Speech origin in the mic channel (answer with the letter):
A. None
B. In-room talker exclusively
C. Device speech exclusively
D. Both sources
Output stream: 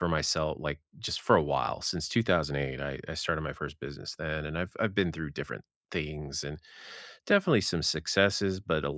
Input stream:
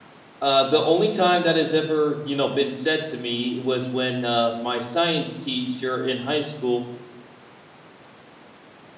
B